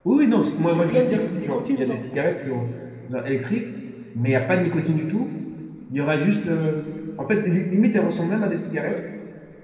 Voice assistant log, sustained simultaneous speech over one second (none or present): present